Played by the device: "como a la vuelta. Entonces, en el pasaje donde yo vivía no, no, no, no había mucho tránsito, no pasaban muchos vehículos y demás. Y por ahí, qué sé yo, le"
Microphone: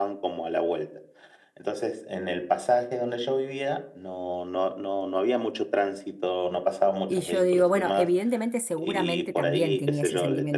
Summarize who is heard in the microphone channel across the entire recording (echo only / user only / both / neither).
both